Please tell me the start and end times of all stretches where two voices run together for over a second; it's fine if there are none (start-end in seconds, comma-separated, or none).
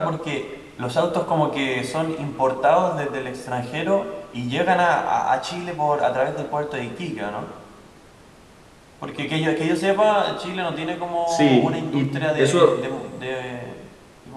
11.3-12.7